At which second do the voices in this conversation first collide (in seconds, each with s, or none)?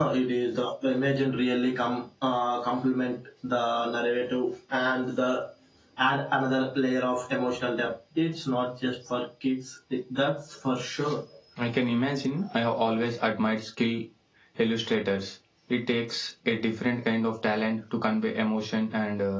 none